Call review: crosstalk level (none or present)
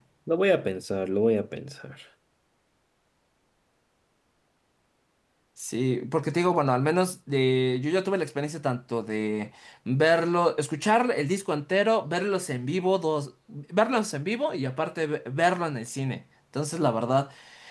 none